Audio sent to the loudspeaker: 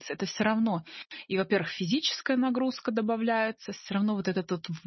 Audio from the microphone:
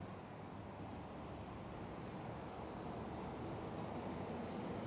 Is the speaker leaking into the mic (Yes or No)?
No